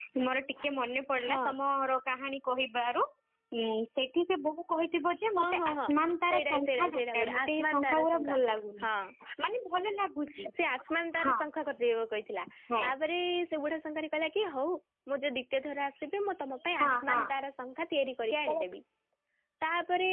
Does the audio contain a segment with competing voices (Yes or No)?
Yes